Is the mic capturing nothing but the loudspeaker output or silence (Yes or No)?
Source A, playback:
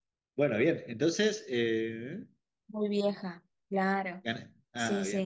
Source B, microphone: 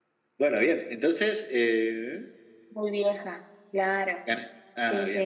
Yes